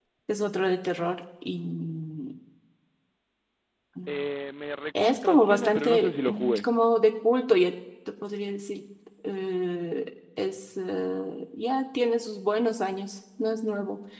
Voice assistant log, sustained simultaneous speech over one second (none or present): present